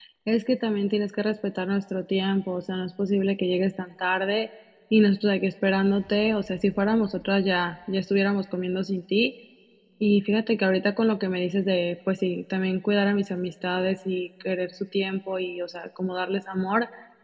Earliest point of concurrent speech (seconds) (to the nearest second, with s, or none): none